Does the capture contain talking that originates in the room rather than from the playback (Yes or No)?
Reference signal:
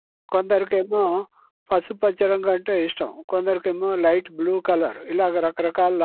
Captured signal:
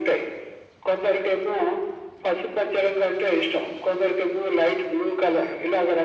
No